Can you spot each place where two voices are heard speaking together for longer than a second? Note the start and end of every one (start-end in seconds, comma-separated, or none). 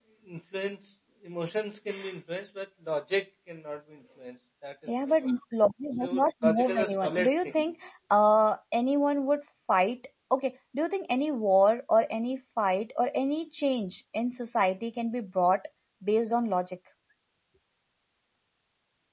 6.0-7.7